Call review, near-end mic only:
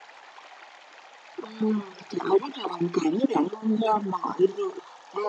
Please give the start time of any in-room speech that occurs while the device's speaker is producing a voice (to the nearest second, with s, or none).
none